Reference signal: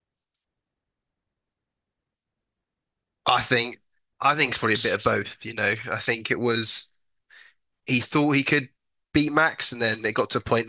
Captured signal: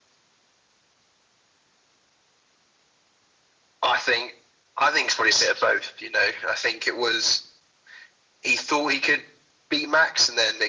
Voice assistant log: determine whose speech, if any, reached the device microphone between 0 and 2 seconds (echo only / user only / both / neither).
neither